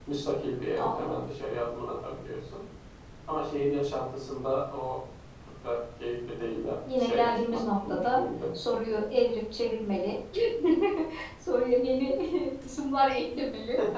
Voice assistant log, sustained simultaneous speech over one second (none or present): present